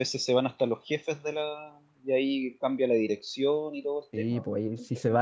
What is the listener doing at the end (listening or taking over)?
taking over